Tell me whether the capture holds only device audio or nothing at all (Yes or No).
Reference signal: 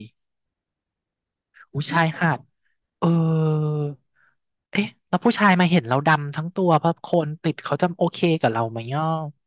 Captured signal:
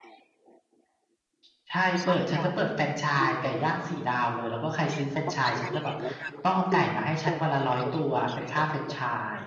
No